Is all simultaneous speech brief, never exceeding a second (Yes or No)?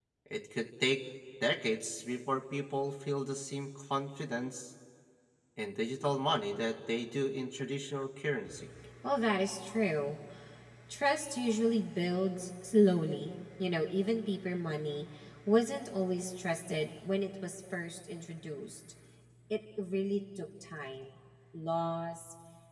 Yes